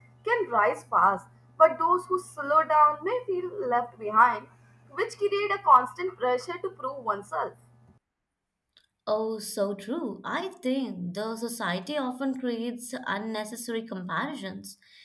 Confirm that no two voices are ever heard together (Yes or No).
Yes